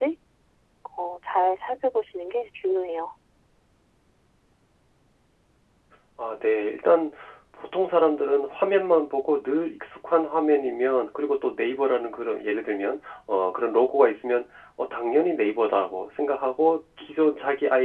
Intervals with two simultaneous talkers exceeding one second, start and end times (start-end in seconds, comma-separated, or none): none